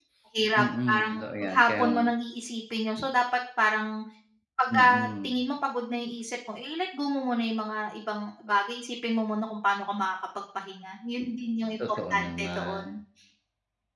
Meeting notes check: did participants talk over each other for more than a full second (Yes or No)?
Yes